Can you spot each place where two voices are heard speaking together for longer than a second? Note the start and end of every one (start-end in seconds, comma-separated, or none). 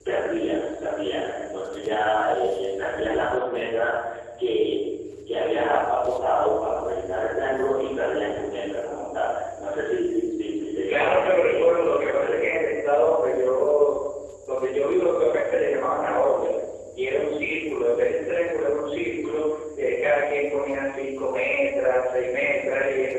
10.9-12.5